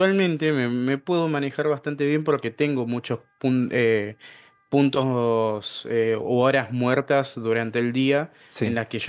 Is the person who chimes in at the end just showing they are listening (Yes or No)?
Yes